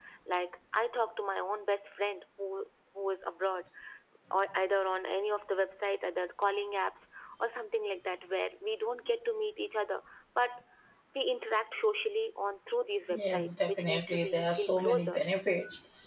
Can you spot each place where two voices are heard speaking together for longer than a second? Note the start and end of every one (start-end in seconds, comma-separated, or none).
13.1-15.2